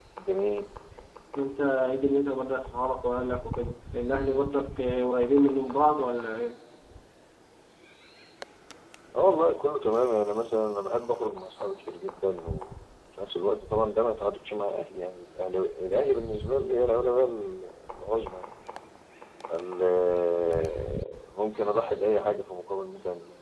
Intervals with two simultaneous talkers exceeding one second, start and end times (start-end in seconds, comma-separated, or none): none